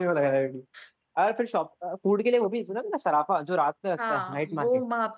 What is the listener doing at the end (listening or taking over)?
taking over